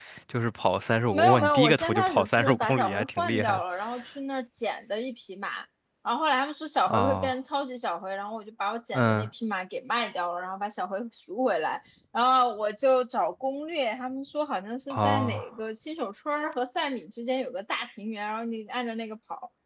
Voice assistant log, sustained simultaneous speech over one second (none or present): present